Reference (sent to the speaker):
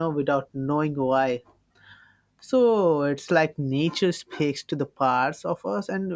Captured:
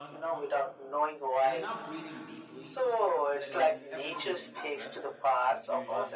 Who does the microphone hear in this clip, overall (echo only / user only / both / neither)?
both